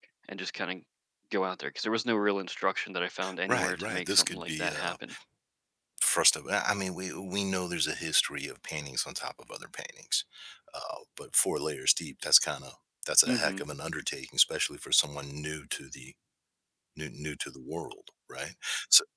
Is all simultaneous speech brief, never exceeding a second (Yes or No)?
No